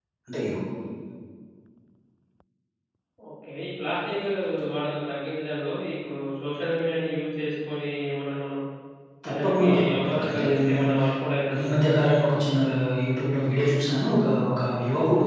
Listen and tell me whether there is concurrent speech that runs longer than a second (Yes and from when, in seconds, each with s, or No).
Yes, from 9.2 s